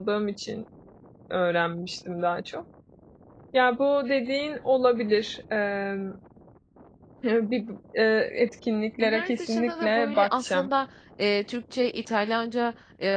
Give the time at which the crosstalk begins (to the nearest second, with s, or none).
9 s